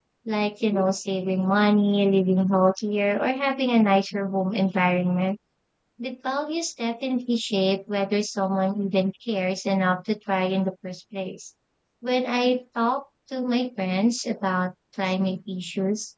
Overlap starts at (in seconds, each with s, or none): none